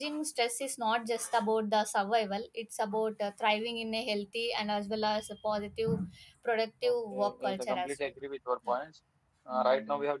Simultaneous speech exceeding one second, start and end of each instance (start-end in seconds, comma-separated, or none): 6.9-8.1